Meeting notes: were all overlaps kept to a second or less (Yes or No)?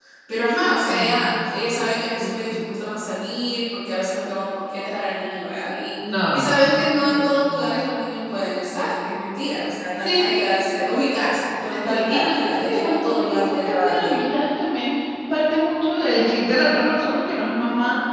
No